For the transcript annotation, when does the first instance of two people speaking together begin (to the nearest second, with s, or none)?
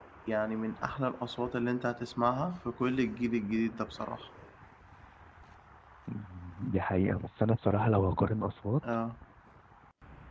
none